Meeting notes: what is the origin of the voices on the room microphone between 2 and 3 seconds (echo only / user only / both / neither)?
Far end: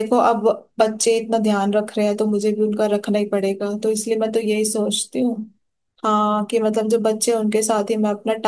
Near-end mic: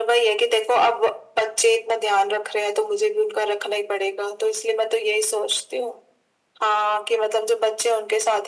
echo only